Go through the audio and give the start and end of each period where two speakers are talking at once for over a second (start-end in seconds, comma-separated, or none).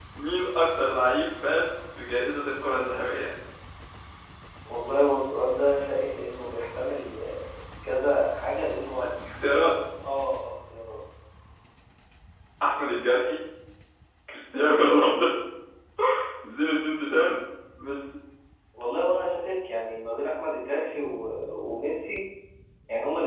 none